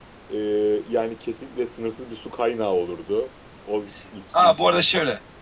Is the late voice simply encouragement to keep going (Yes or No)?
No